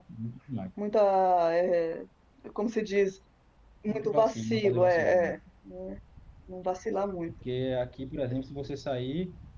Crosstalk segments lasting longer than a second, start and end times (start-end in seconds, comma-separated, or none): 3.9-5.3